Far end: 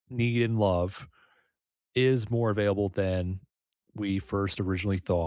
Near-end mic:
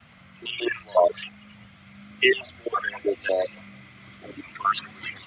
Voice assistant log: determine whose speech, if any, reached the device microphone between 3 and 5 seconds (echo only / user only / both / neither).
echo only